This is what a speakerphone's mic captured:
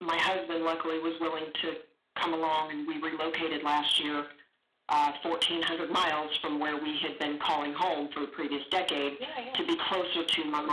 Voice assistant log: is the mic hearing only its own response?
No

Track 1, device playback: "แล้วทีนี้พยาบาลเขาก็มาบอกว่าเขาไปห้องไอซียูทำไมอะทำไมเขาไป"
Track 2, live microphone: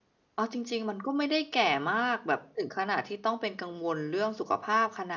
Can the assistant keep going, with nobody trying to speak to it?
No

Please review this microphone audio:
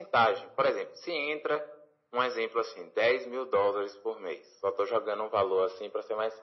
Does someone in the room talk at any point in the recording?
No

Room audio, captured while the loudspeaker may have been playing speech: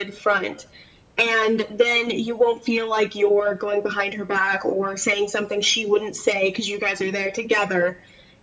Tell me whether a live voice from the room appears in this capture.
No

